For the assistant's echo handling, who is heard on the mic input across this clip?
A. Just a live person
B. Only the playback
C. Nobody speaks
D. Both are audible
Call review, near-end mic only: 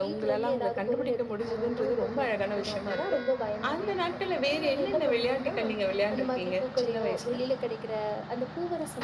B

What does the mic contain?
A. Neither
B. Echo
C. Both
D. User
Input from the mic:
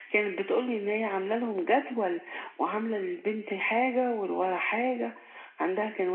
B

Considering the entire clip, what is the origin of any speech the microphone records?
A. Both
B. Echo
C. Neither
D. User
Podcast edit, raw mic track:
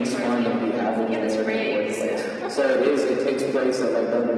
B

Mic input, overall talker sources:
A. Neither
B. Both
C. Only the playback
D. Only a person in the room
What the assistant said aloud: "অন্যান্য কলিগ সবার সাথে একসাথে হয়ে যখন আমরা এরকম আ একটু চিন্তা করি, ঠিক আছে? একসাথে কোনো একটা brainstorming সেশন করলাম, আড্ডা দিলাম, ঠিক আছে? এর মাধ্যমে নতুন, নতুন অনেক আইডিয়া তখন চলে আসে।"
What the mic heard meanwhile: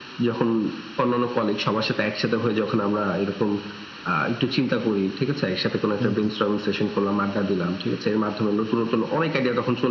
B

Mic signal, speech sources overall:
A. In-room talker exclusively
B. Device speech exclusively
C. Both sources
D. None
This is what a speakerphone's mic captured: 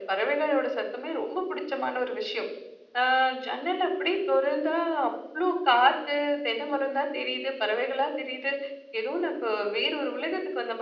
B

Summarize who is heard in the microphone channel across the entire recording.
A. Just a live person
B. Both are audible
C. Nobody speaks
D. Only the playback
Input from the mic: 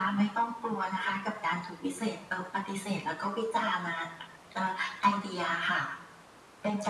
D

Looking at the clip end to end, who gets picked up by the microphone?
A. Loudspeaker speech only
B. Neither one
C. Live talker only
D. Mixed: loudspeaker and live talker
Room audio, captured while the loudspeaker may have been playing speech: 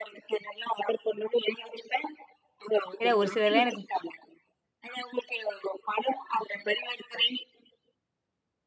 D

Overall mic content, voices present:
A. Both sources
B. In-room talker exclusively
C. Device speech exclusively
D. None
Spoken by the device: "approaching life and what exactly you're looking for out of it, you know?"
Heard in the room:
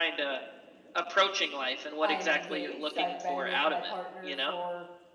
A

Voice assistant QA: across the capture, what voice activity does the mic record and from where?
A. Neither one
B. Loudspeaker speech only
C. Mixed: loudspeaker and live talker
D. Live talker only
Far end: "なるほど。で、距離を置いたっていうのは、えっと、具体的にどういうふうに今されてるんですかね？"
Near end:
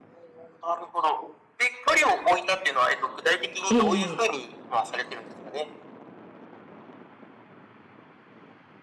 C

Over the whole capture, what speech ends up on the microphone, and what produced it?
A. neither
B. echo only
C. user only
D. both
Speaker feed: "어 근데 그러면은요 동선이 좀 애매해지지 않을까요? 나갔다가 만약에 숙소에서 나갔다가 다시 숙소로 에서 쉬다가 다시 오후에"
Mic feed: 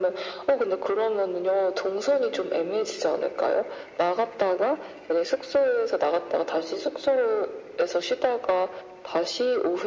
B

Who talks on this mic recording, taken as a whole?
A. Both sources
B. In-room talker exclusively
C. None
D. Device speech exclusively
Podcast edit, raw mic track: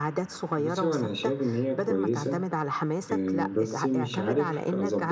A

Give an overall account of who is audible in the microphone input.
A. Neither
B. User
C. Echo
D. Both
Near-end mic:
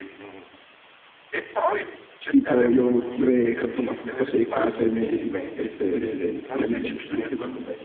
D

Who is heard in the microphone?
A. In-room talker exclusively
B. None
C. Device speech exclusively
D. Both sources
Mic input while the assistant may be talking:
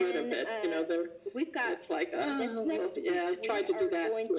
C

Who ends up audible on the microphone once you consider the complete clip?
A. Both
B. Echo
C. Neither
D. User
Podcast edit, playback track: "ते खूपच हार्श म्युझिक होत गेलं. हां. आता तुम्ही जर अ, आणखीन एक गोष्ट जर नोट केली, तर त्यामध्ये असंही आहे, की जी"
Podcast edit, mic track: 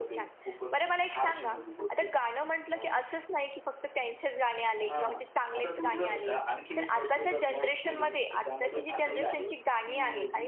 A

